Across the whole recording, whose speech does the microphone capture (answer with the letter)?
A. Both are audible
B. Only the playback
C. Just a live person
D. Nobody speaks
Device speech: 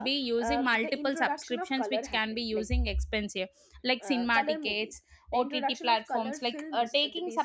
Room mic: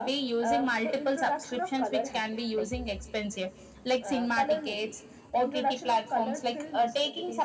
B